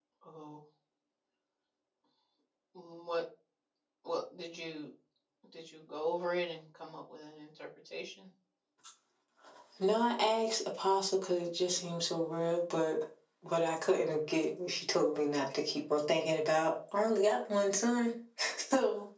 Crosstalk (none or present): none